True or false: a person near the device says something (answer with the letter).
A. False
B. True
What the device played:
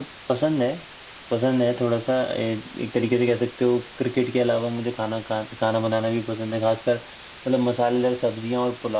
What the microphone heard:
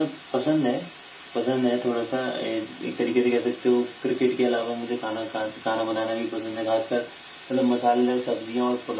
A